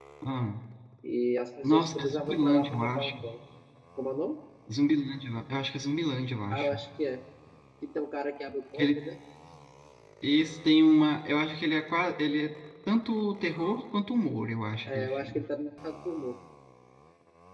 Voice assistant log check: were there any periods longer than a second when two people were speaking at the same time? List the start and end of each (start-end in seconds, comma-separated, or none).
1.6-3.1